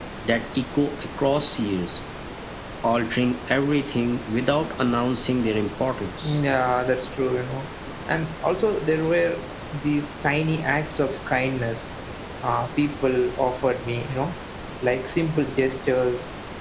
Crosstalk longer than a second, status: none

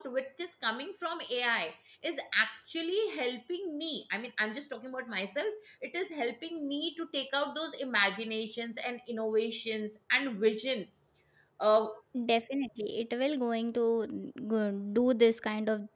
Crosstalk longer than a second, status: none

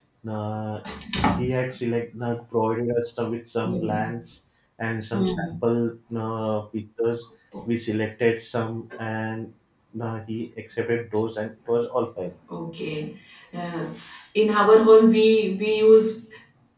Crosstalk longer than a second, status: none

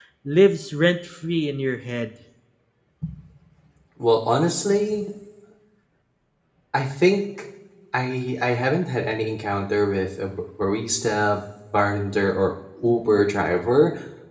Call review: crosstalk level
none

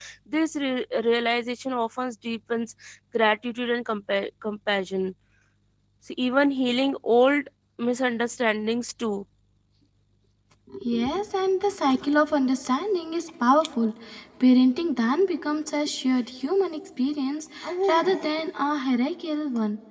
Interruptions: none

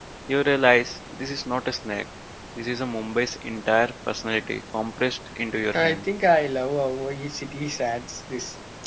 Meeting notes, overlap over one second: none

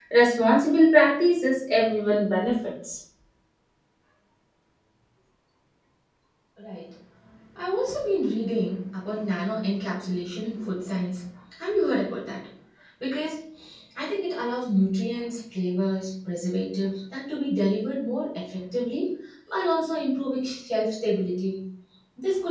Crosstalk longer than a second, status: none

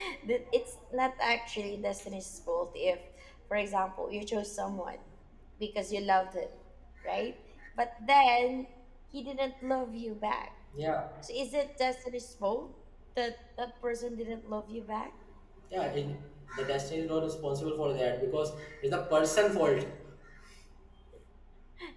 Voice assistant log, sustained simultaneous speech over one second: none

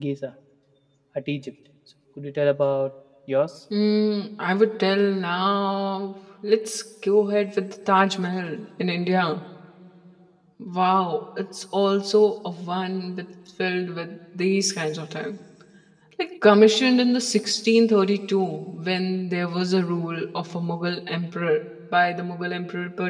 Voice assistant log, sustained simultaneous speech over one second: none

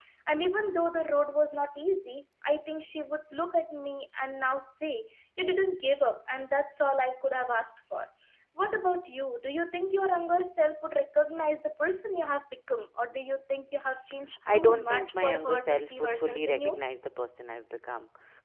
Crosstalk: present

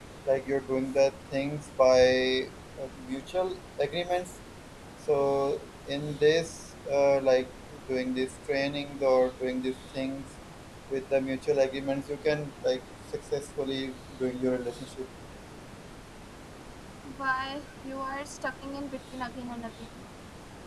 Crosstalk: none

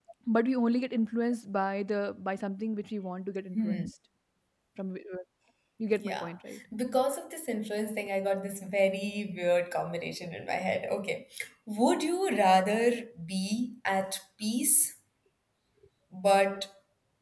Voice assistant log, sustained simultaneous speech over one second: none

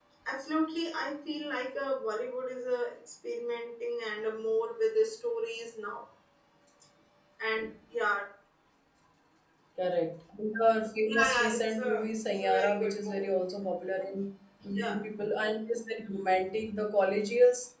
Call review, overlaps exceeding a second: present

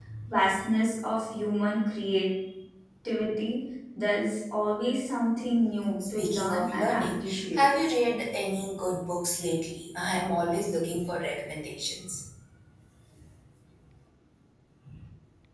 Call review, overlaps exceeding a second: present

